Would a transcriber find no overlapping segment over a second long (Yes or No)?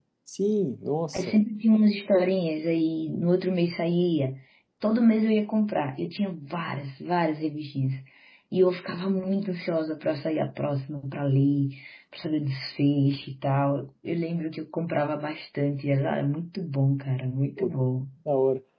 Yes